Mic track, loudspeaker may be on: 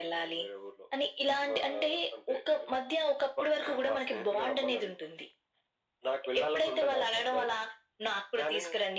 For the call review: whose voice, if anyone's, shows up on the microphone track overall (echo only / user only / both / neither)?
echo only